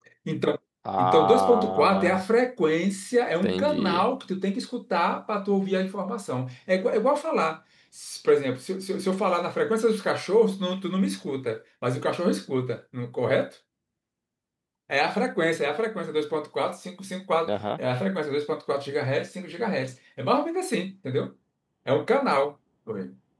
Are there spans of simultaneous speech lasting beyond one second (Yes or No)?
Yes